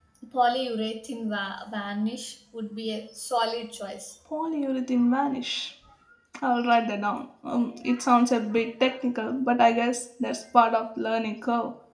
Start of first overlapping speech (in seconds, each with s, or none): none